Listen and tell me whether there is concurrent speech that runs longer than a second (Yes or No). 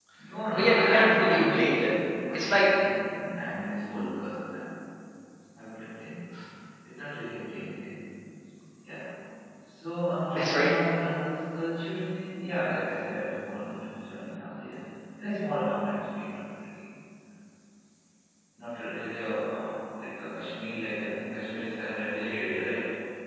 Yes